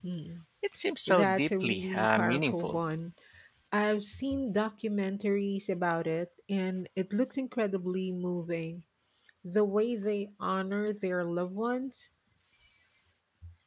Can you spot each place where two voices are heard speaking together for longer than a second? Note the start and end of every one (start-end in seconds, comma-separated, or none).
1.1-2.8